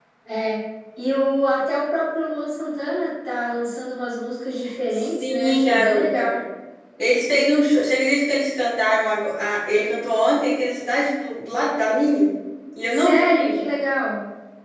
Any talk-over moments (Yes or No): Yes